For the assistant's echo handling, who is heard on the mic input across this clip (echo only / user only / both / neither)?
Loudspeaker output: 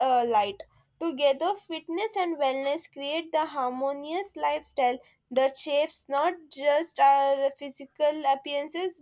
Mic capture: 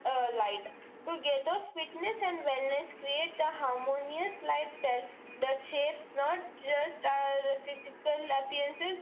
echo only